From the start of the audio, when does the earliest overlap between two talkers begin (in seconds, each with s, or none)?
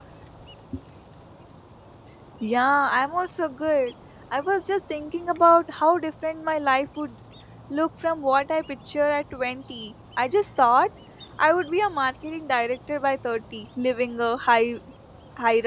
none